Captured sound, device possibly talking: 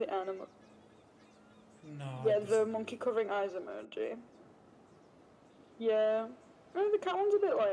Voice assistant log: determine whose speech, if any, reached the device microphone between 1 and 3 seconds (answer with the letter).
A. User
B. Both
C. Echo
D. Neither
B